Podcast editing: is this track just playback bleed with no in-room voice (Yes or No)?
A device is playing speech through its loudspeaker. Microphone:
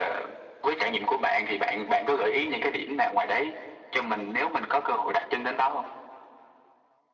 Yes